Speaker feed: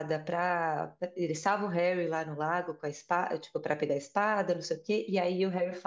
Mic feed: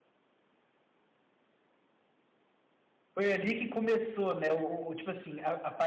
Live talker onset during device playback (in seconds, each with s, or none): 3.1 s